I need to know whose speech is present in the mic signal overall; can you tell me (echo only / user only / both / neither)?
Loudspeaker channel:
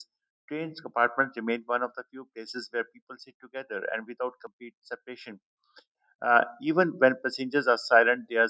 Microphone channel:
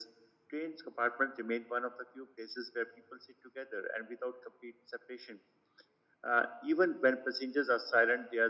echo only